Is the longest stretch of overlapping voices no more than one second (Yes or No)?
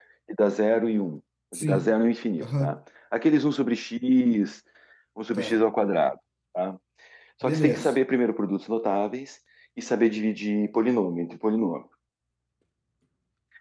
Yes